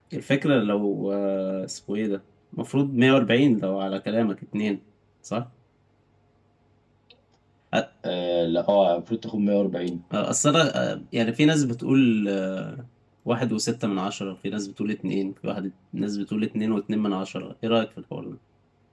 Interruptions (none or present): none